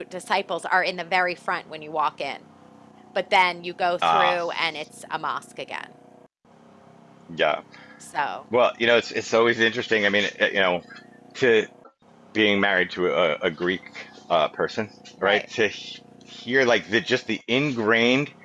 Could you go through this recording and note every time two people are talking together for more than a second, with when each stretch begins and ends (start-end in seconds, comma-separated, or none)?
none